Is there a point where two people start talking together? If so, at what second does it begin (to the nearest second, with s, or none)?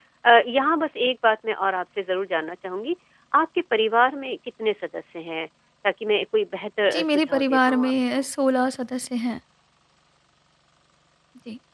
7 s